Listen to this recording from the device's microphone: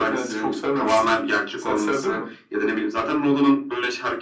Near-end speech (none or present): none